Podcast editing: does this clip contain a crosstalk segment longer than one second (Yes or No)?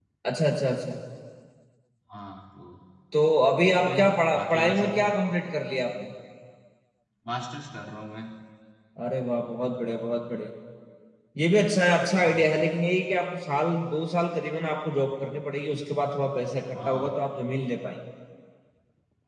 Yes